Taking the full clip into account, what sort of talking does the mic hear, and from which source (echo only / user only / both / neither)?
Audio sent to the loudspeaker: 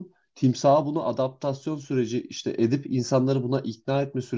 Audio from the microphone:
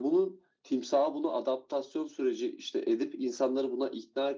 echo only